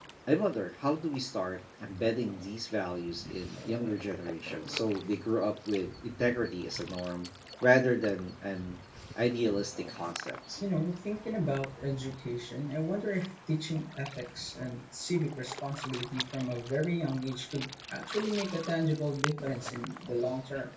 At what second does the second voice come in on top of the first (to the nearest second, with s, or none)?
none